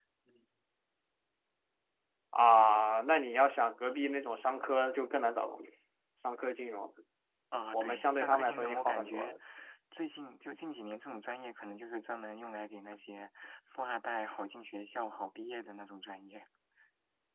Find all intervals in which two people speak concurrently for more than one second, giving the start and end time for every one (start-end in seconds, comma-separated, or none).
7.7-9.4